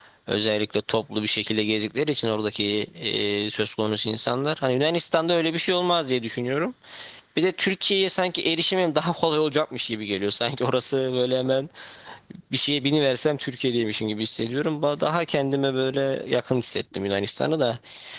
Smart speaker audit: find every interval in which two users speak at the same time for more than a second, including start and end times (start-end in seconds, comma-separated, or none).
none